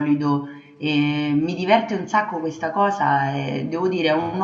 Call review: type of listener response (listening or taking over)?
listening